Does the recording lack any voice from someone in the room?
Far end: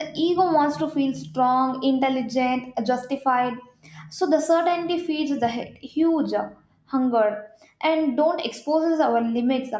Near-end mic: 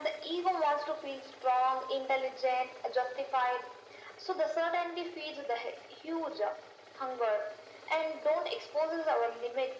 Yes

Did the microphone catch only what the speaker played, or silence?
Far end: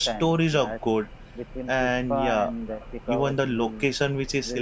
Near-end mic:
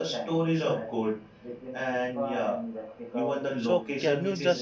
No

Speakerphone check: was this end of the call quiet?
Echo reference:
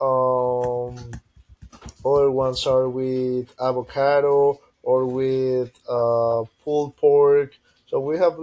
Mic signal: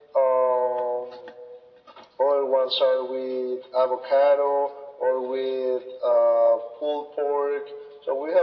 Yes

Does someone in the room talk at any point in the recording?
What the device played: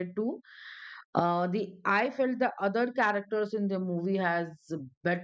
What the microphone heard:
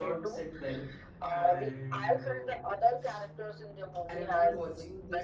Yes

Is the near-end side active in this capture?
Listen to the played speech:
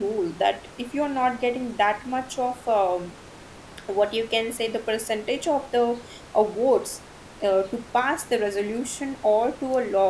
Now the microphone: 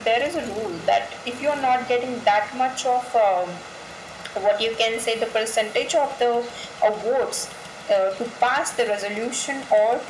No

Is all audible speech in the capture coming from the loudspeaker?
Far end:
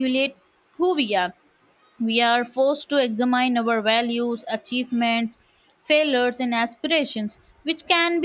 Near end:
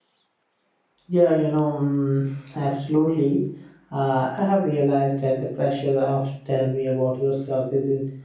No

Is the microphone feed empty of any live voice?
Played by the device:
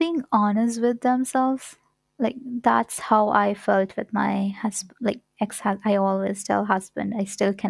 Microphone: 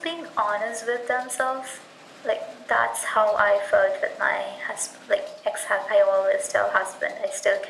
Yes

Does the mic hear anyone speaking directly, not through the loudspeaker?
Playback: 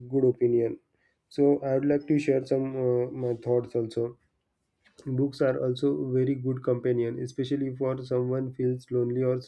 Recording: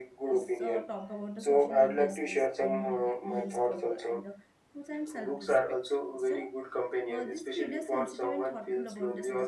Yes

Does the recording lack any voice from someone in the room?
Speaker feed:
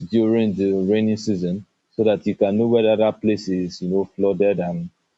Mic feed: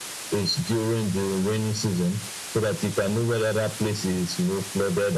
Yes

